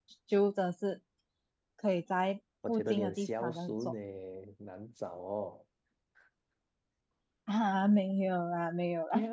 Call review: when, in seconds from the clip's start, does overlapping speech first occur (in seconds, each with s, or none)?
2.7 s